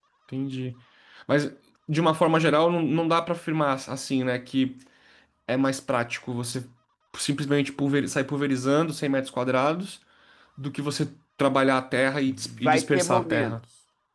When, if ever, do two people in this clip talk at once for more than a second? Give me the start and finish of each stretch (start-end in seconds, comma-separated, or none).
12.3-13.5